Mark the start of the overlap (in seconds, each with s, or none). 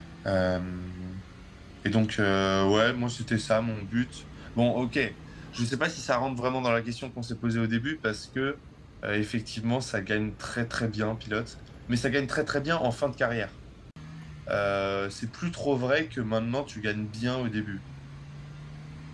none